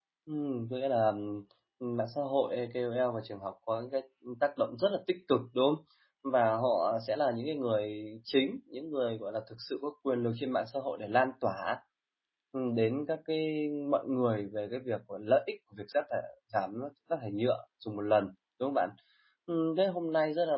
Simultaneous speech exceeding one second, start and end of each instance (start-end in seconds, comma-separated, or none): none